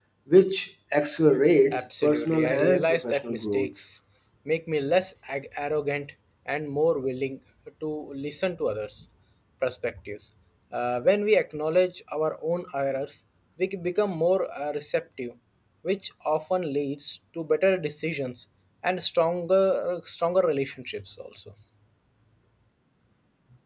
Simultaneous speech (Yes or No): Yes